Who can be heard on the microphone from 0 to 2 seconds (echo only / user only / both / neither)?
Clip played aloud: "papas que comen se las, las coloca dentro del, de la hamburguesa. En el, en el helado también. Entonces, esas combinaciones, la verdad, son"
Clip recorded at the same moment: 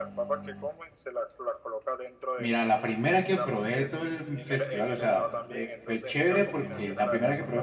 echo only